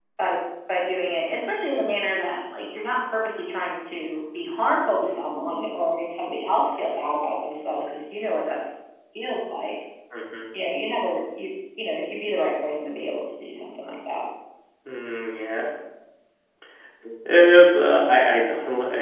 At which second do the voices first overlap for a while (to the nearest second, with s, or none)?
none